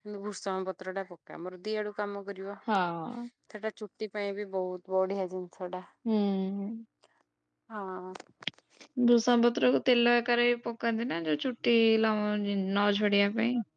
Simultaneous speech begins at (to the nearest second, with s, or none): none